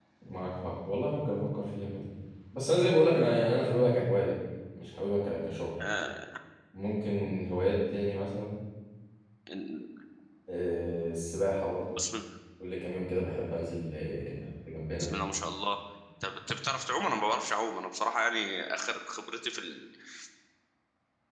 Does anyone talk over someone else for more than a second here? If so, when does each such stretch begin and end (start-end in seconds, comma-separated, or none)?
none